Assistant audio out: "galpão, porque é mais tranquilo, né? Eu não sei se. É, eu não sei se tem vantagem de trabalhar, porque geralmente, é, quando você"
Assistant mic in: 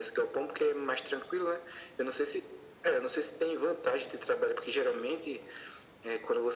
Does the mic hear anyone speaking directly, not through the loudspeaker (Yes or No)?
No